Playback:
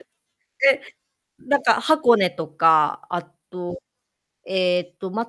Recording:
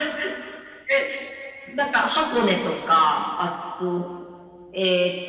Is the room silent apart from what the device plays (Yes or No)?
Yes